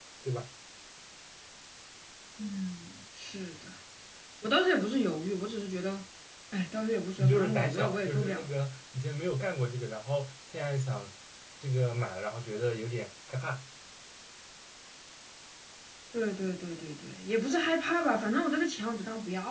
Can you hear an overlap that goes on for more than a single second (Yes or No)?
Yes